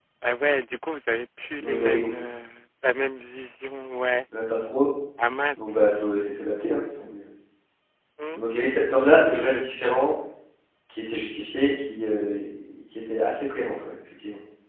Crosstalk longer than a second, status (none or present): none